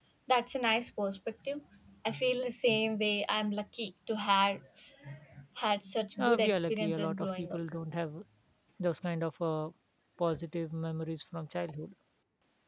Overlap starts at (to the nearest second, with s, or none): 6 s